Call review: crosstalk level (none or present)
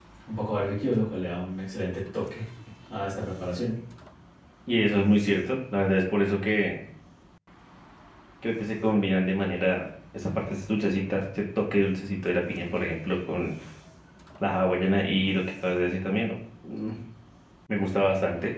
none